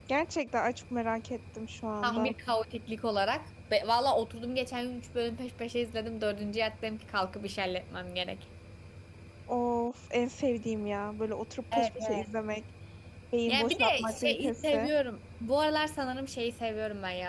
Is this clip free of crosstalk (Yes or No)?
No